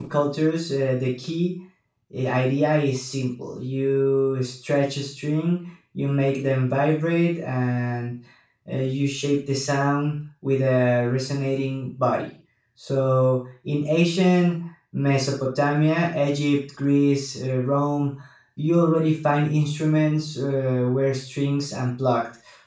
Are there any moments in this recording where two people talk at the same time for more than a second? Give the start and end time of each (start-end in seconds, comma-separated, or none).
none